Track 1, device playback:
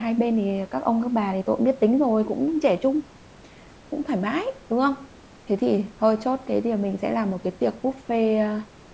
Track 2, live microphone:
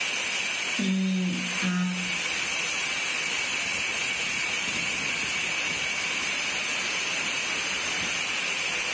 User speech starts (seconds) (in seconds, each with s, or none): 0.8 s